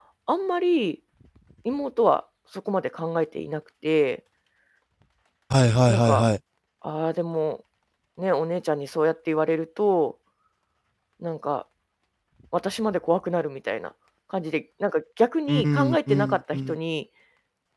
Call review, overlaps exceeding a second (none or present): present